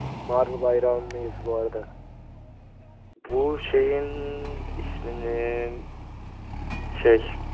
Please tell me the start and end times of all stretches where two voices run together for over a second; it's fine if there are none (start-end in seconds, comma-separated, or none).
none